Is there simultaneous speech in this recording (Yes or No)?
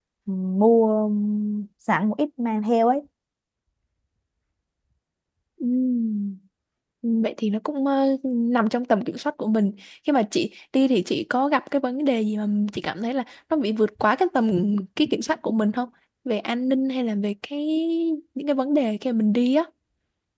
No